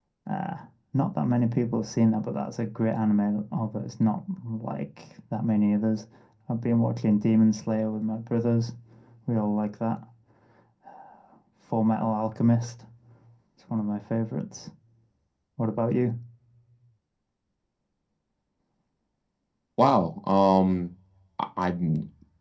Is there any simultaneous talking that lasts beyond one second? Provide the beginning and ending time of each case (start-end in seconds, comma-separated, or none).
none